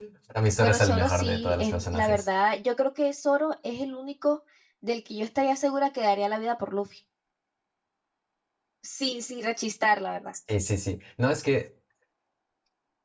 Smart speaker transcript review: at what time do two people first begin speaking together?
1 s

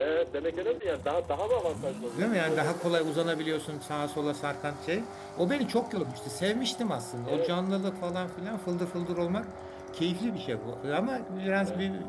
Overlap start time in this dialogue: 2 s

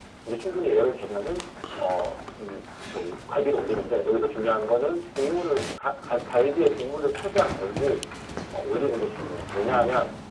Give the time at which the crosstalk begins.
none

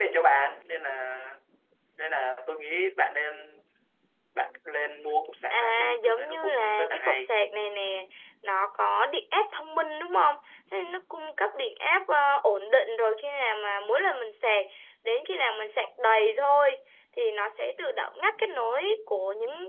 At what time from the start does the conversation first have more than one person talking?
6 s

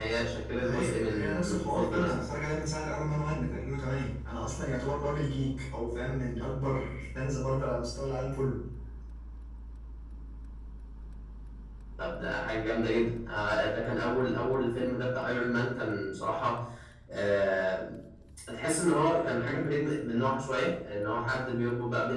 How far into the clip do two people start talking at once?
1 s

